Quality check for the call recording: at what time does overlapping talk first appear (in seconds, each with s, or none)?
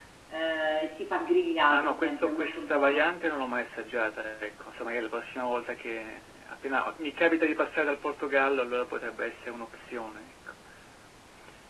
1.7 s